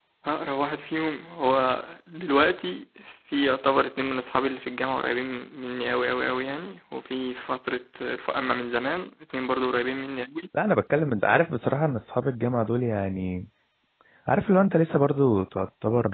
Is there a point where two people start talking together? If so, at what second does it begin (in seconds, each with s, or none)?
none